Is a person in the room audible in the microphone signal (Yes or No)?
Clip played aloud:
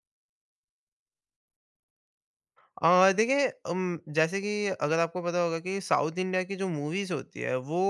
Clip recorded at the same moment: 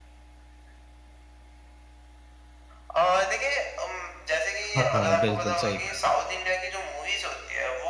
Yes